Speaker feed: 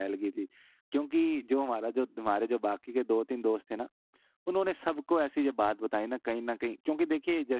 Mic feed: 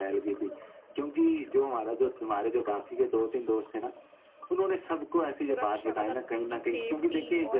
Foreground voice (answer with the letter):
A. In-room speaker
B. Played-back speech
B